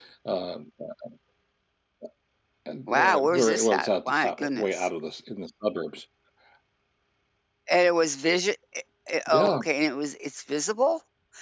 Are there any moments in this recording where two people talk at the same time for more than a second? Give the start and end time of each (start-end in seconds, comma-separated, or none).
2.9-4.9